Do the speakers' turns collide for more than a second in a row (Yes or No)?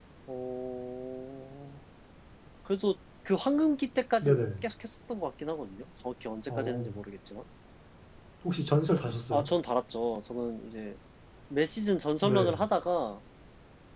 No